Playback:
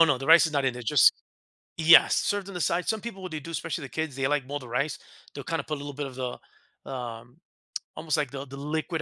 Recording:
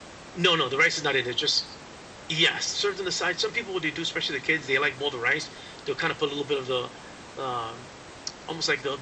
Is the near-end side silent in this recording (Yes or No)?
Yes